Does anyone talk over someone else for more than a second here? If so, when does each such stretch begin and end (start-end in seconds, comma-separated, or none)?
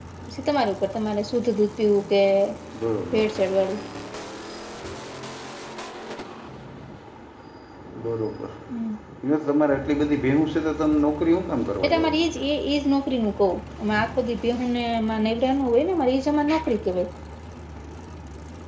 none